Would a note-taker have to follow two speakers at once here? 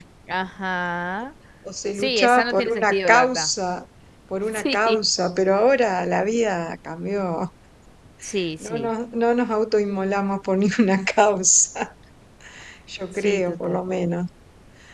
Yes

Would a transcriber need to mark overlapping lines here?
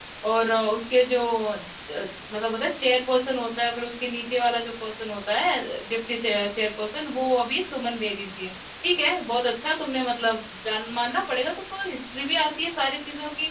No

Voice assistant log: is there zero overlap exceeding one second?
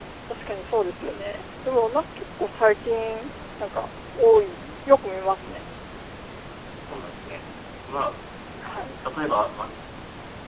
Yes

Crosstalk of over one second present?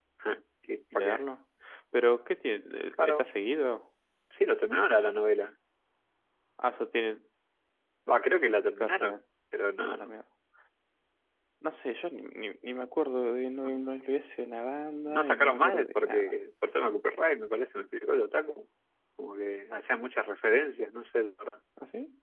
Yes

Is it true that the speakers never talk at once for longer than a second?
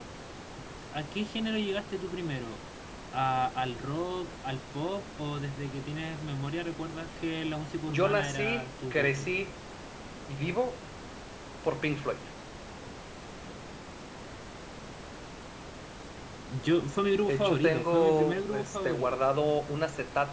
No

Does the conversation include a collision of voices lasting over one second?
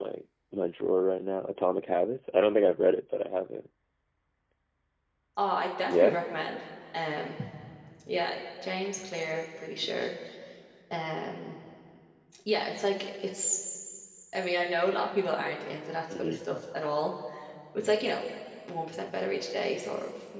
No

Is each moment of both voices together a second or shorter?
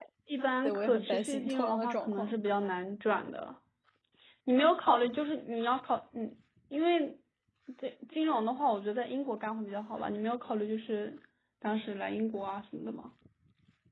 No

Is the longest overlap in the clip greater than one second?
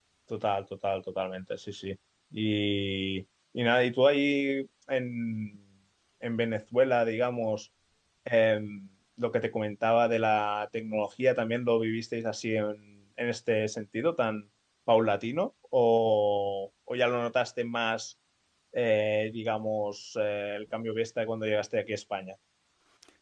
No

